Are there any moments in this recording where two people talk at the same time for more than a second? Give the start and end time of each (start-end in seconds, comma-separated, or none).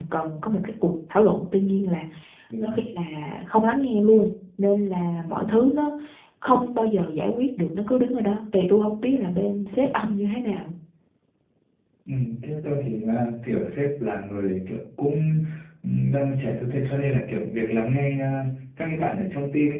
none